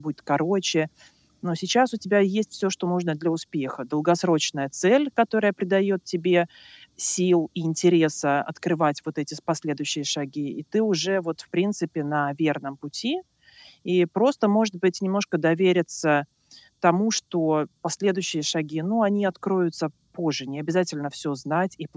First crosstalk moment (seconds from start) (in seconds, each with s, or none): none